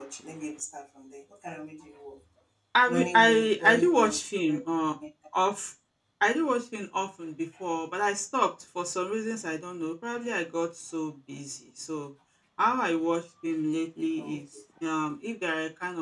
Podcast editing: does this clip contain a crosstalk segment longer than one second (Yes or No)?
Yes